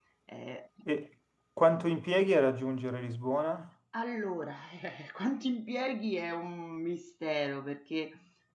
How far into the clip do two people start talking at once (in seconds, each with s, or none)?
none